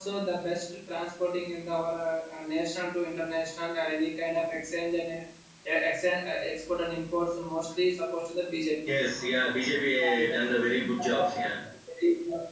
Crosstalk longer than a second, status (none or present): none